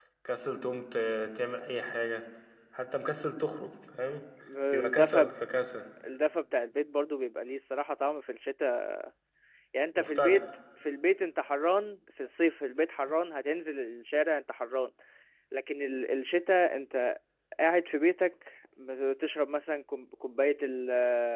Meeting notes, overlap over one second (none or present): none